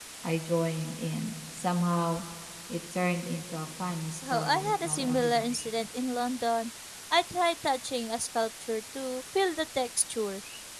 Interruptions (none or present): present